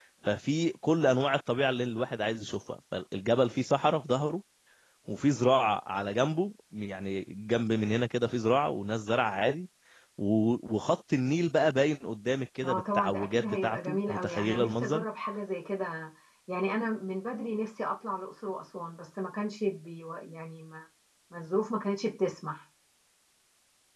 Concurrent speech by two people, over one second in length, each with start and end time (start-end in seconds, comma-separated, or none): 12.6-15.0